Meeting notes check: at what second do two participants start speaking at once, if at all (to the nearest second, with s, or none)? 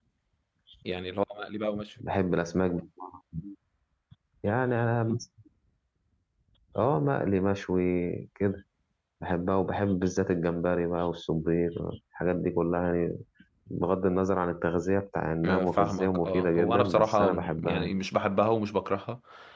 15 s